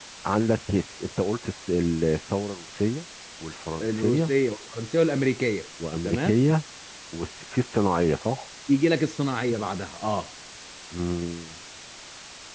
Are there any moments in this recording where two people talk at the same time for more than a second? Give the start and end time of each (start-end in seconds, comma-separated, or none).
none